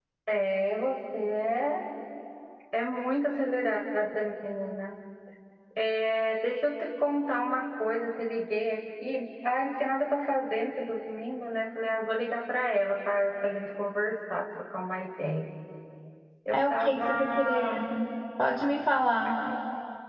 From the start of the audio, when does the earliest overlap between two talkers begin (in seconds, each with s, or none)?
16.5 s